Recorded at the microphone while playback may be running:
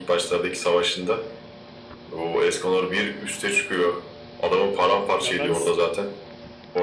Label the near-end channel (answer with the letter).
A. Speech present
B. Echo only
A